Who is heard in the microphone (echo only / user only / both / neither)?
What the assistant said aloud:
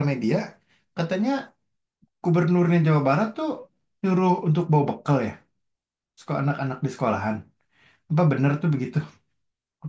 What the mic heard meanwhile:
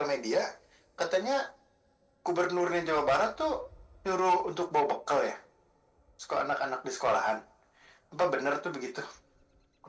echo only